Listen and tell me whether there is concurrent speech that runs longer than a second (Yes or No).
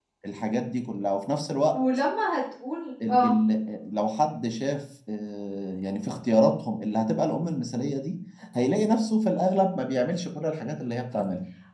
No